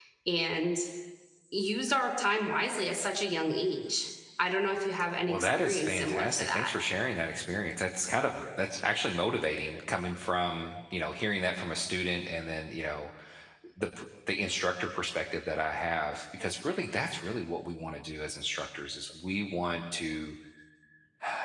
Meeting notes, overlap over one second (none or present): present